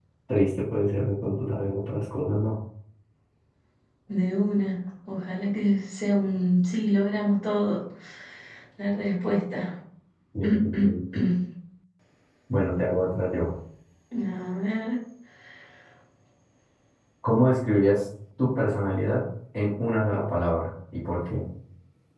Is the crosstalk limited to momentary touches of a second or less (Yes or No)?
Yes